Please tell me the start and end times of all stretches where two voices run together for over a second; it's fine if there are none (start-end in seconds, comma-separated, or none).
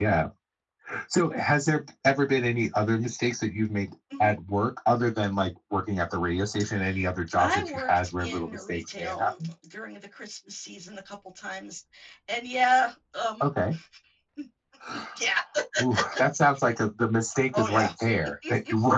7.4-9.5